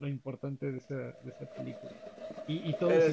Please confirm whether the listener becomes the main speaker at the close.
No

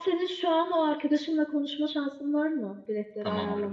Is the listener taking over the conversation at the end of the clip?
Yes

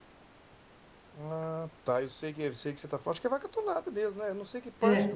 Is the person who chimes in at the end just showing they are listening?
No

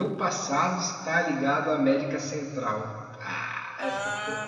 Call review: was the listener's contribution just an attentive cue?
No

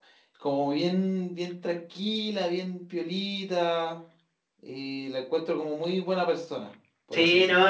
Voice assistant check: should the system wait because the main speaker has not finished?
No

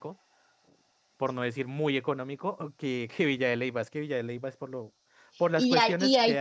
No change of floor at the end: No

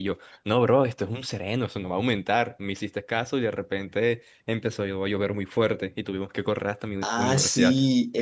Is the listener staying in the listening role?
No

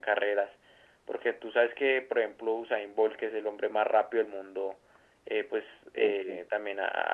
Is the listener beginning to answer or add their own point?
No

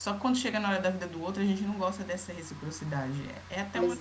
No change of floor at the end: Yes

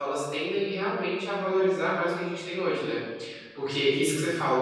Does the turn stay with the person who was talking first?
Yes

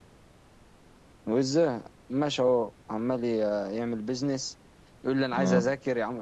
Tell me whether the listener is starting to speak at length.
No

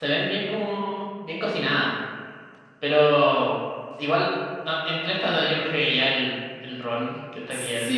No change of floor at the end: No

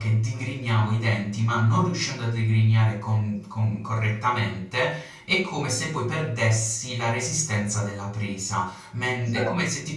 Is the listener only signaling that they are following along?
Yes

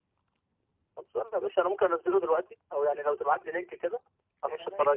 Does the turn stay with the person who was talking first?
No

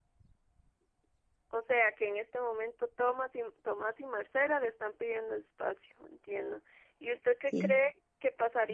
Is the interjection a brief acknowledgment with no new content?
Yes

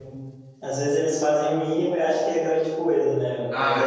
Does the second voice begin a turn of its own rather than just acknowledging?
No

